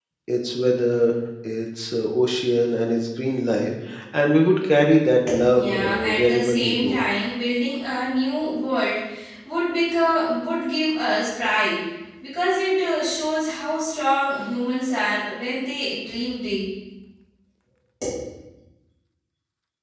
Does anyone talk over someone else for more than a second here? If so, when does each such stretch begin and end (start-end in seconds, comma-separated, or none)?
5.6-7.0